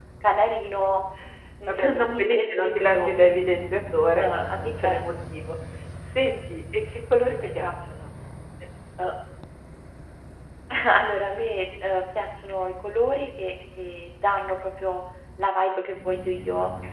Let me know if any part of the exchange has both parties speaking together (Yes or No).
Yes